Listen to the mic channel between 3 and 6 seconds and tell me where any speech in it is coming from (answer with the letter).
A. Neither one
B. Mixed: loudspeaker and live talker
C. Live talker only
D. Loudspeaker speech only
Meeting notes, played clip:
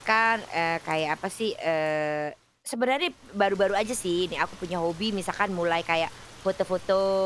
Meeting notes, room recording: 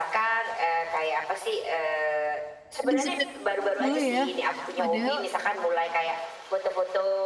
B